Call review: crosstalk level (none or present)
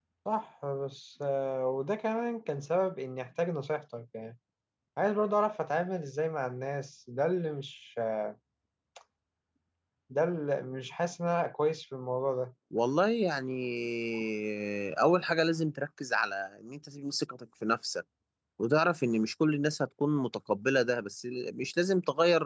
none